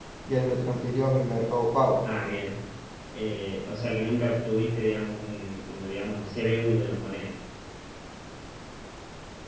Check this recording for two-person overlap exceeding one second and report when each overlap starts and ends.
none

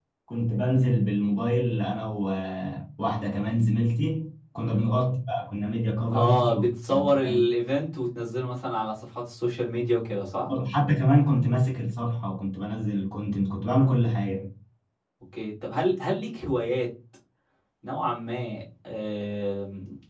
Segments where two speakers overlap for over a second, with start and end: 6.1-7.4

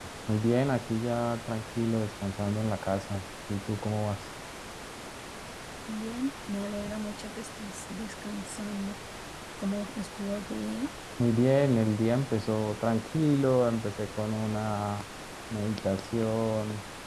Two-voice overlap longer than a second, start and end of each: none

